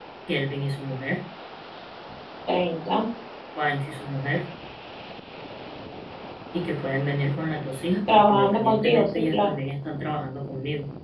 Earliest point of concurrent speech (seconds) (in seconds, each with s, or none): 8.1 s